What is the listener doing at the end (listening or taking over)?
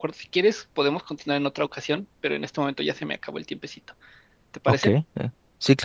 taking over